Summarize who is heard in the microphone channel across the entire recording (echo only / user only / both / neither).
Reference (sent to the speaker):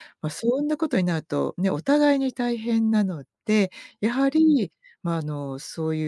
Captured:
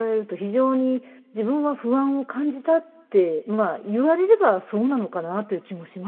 user only